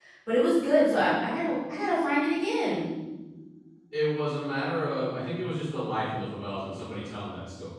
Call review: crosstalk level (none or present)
none